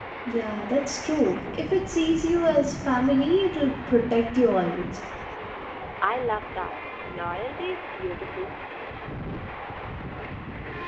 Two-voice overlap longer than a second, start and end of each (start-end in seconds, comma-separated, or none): none